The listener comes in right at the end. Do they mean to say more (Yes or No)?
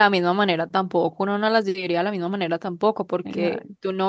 No